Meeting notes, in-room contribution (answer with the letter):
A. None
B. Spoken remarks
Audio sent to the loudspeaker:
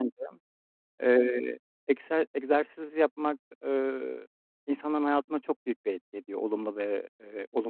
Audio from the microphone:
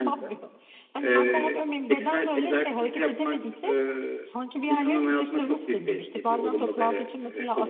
B